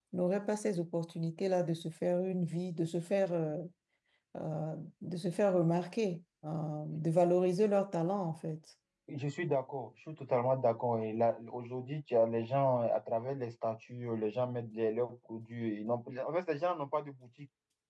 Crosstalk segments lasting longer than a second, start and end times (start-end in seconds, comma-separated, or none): none